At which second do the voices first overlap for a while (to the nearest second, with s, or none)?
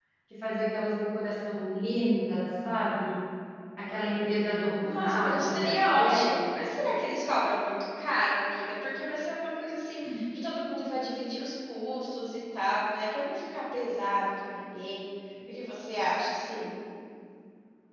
5 s